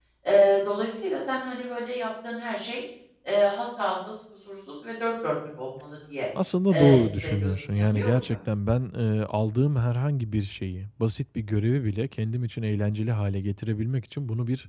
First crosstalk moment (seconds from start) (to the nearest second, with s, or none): 7 s